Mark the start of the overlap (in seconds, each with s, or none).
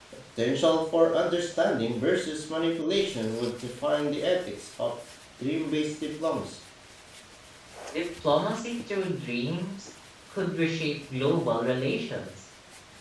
none